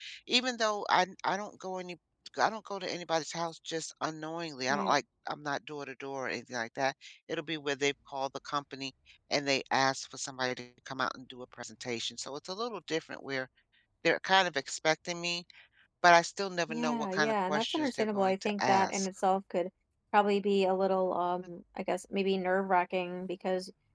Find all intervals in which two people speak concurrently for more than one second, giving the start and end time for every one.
16.7-19.1

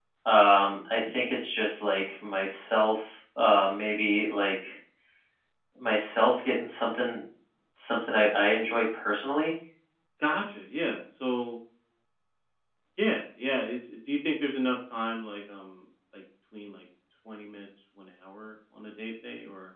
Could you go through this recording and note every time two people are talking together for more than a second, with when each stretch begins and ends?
none

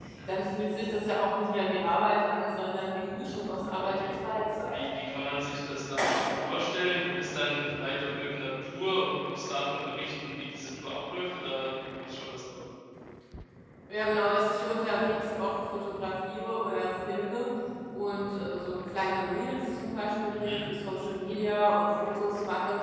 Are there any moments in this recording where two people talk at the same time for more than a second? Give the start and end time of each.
none

